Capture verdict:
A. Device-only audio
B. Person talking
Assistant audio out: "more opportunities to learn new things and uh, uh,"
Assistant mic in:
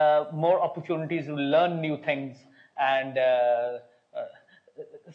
A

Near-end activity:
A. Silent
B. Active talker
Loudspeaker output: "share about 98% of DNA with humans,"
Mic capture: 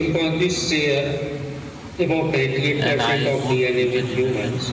B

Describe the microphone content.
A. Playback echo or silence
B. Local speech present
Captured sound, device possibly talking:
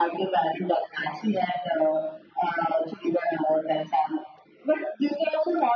A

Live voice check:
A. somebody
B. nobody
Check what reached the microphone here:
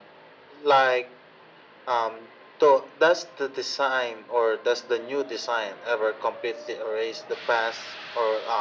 B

